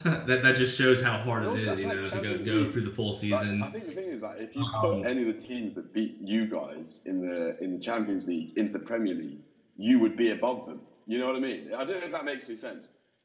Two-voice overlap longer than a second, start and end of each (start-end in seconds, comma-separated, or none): 1.4-2.8